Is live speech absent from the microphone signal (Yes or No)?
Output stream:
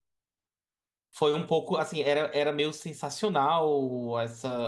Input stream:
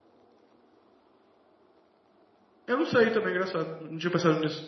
No